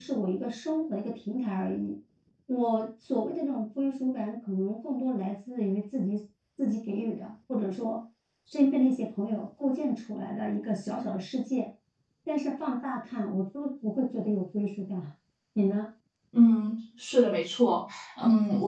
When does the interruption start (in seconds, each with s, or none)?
none